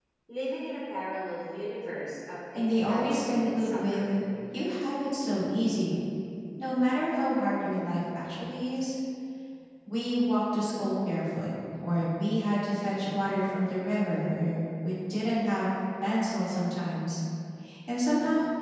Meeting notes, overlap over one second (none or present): present